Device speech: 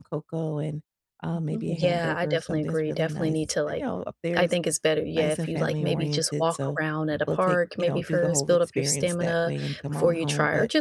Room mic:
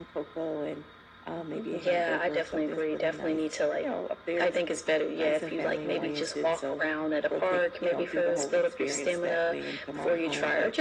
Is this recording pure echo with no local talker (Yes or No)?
Yes